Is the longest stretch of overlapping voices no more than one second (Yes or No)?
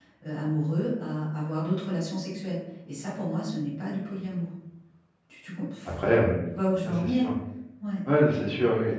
Yes